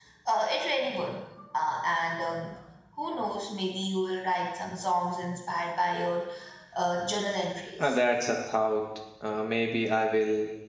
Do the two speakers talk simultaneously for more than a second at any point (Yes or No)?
No